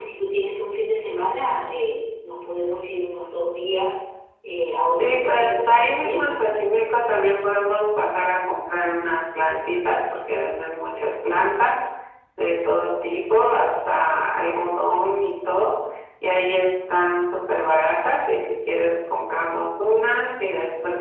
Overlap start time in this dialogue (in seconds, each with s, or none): 5.0 s